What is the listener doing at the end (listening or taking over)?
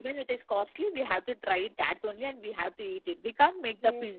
listening